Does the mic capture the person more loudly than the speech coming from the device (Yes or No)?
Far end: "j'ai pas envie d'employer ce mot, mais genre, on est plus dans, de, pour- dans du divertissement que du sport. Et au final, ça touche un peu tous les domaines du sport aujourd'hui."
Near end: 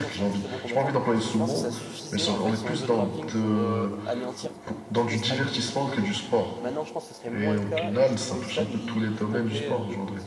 No